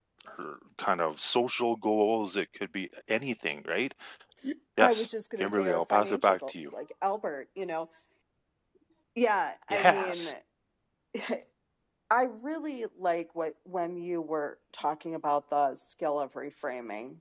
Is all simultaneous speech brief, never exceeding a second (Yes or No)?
No